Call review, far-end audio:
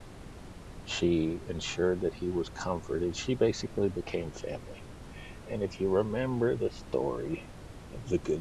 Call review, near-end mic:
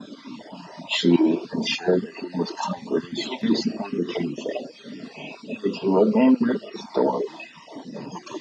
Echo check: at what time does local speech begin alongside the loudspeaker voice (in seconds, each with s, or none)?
none